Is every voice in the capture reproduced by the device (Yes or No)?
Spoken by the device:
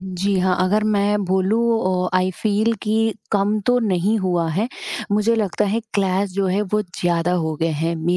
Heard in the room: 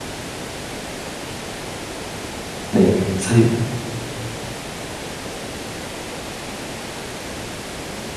No